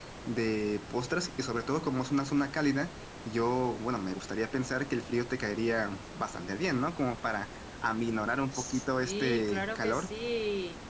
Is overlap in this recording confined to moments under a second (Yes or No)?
No